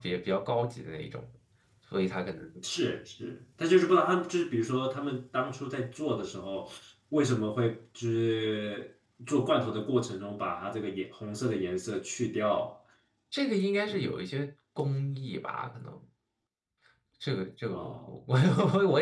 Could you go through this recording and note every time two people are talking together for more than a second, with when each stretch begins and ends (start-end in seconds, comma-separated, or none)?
none